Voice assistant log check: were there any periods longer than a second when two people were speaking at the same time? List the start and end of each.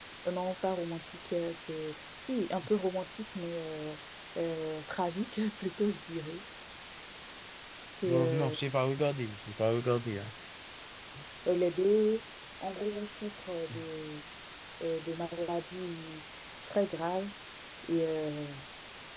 none

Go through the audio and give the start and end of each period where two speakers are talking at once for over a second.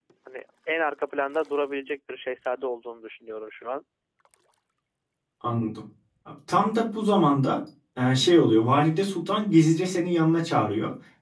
none

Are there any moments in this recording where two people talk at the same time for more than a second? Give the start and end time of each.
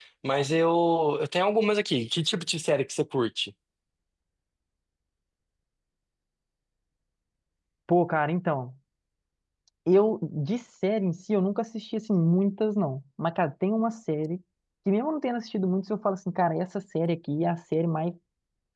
none

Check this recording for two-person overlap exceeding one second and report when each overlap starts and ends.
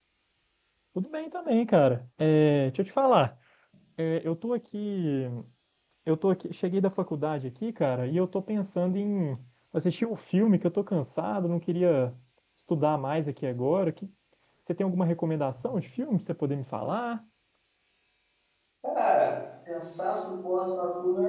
none

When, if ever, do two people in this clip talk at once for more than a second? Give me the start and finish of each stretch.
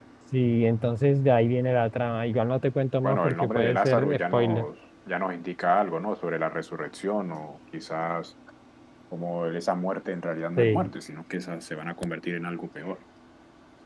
3.0-4.7

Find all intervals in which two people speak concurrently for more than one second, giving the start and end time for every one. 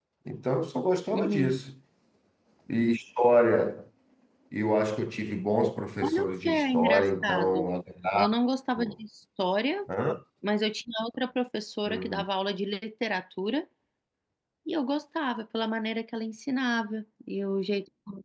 6.0-7.7

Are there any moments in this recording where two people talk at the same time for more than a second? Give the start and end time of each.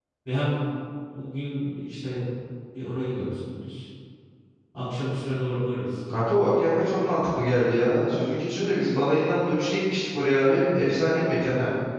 none

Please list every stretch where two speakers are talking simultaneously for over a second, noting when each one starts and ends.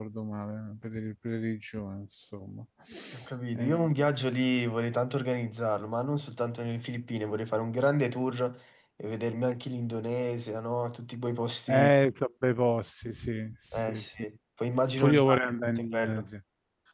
15.0-16.3

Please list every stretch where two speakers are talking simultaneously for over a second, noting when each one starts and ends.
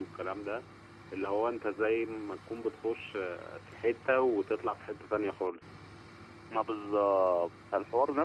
none

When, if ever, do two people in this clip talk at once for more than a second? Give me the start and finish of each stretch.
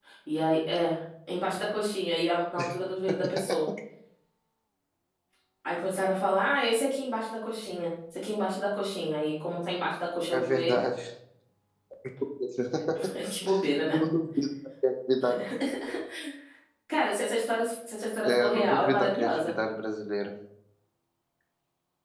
18.2-19.5

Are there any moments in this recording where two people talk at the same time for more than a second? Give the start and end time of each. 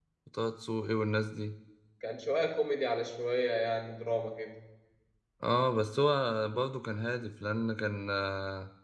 none

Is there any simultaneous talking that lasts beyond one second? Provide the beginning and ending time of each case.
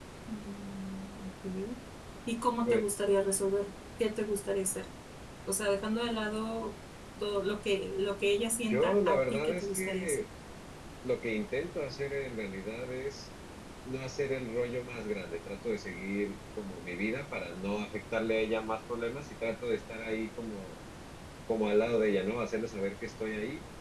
8.7-10.2

